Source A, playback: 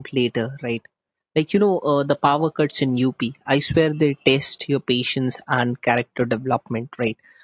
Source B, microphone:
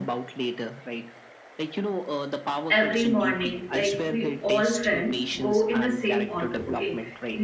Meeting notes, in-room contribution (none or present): present